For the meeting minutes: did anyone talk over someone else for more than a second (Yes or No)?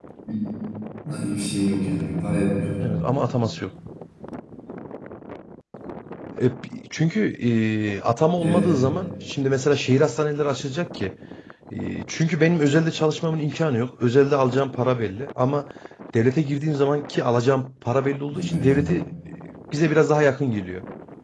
No